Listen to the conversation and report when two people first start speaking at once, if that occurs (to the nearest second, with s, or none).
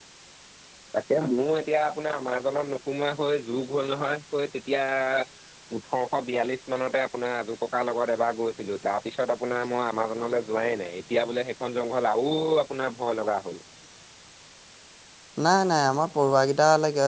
none